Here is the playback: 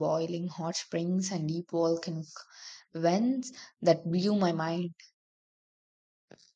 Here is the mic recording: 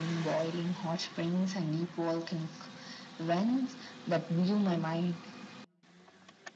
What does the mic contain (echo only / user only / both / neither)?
echo only